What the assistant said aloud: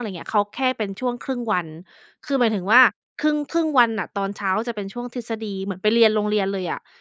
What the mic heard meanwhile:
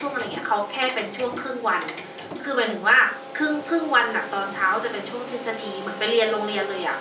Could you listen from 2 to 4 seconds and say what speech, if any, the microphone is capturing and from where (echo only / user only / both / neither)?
echo only